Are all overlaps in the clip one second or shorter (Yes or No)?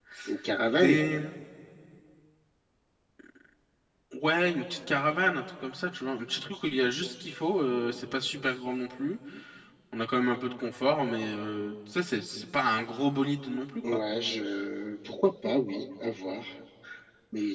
Yes